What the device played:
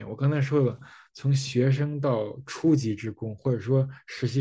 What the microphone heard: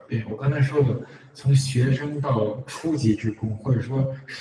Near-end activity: none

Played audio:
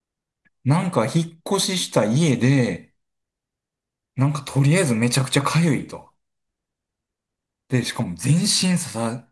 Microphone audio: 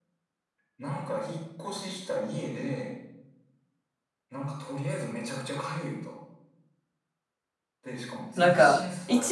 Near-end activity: present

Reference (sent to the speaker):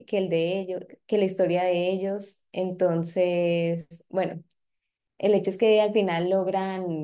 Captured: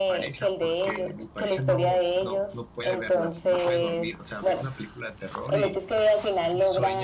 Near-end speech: present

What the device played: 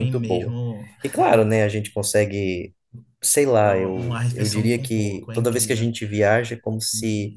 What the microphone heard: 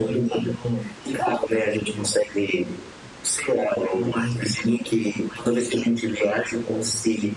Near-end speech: none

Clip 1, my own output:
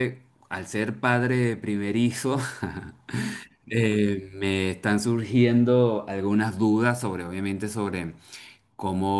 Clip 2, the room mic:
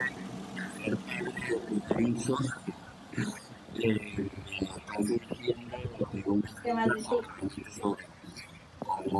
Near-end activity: present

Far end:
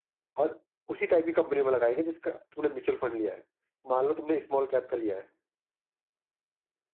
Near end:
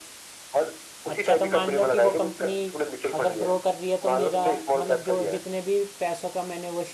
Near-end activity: present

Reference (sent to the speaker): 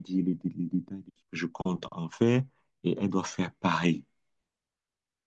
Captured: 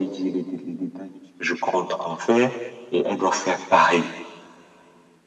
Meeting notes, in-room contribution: none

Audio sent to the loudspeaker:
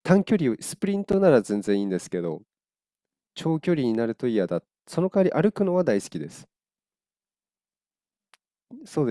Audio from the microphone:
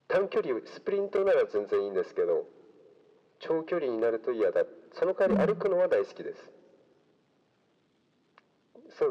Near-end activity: present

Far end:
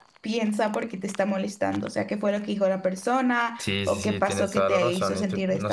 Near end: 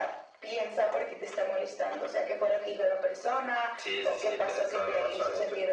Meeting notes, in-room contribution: none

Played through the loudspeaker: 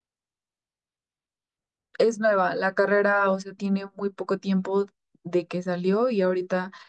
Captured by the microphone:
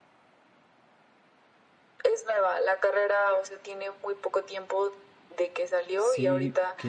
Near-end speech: present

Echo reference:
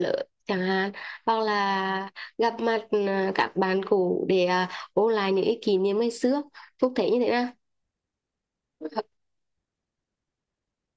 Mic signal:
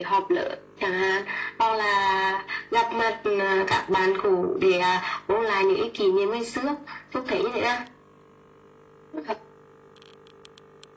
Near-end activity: none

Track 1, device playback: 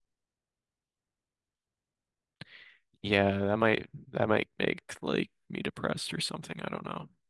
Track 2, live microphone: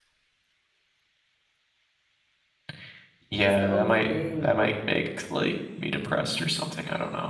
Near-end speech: present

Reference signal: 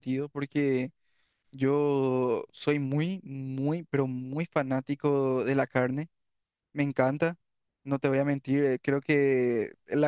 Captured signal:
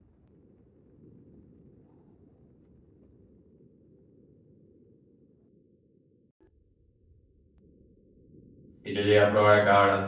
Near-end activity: present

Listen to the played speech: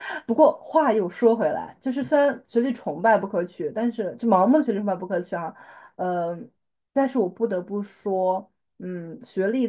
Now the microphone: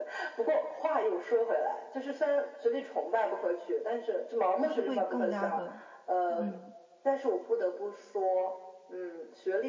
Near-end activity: present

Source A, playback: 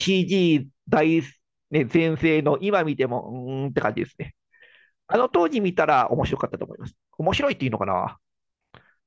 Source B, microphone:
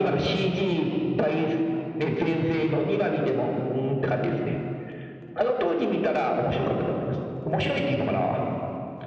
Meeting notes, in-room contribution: none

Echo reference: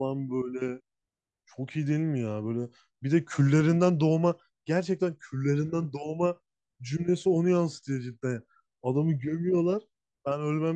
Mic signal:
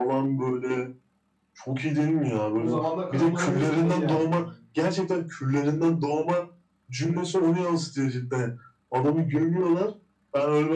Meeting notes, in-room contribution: present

